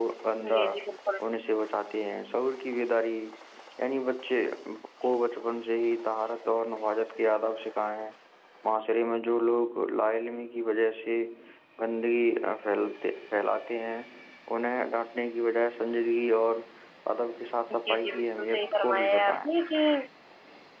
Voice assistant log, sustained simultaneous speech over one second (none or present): present